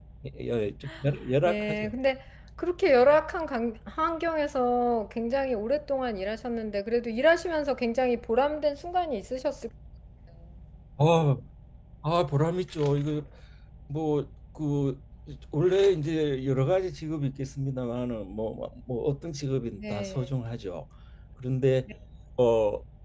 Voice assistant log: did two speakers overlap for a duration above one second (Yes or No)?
No